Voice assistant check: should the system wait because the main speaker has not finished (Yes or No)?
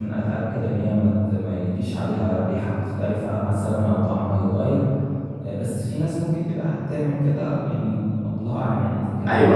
No